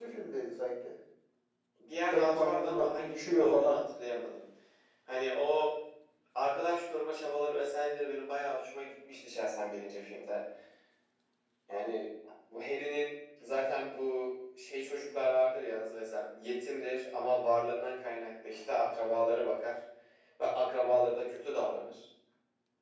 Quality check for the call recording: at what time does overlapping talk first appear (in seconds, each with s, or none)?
2.1 s